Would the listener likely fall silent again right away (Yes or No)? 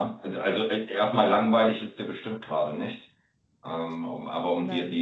Yes